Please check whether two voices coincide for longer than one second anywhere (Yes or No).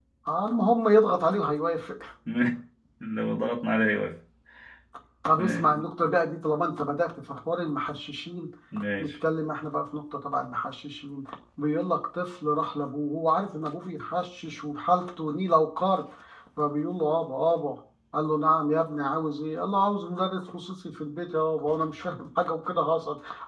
No